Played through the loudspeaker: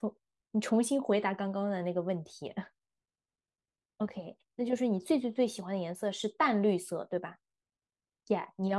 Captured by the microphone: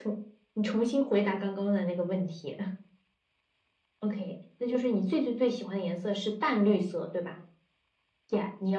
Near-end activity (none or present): none